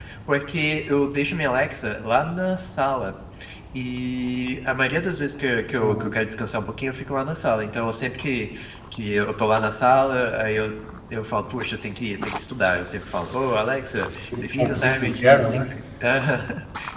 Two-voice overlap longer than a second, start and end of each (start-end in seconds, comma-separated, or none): 14.4-15.7